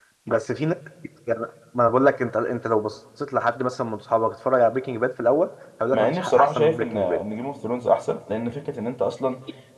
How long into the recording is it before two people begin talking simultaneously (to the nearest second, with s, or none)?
6 s